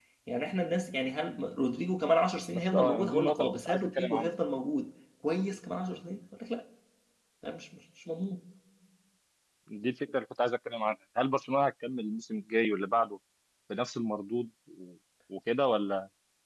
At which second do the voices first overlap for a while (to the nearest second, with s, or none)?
3 s